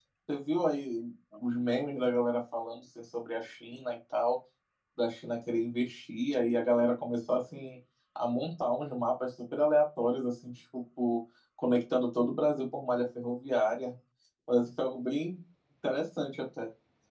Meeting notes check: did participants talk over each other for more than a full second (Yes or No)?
No